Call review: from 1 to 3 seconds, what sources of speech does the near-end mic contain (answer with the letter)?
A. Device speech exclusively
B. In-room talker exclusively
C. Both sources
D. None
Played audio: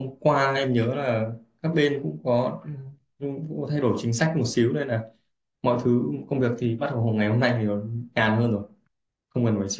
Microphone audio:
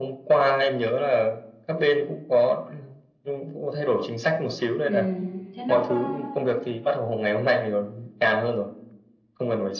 A